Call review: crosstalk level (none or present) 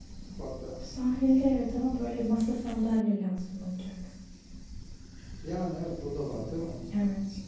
none